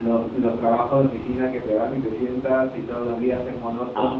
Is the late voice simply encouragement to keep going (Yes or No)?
Yes